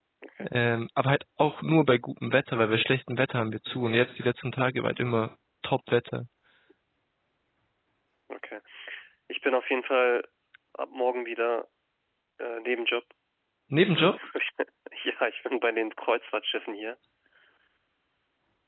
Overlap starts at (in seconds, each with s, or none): none